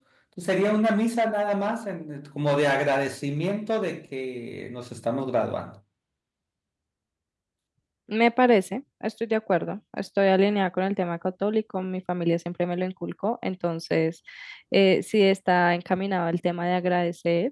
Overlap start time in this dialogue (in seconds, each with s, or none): none